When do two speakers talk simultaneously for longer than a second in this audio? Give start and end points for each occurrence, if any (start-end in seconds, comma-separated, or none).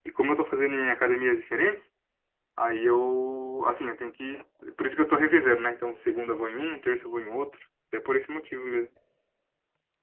none